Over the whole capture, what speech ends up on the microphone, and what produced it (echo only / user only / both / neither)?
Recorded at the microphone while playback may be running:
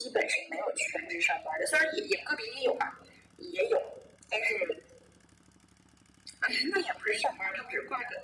echo only